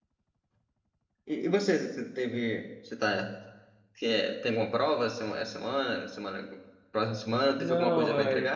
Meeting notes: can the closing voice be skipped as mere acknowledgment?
No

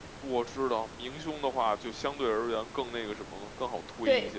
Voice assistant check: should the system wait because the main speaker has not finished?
No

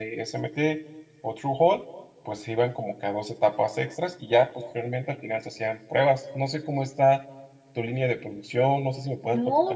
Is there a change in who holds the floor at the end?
Yes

